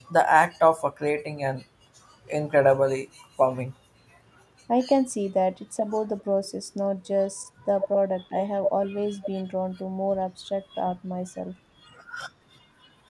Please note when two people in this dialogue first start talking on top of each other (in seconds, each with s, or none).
none